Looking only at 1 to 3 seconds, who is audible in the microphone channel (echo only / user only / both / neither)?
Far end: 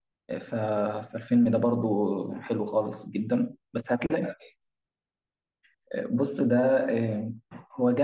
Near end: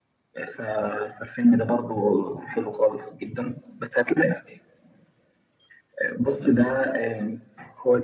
echo only